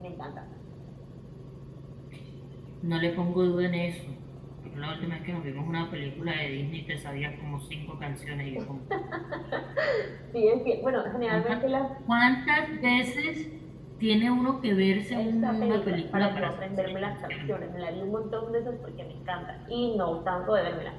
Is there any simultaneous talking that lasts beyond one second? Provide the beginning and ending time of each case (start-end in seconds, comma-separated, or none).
15.1-17.5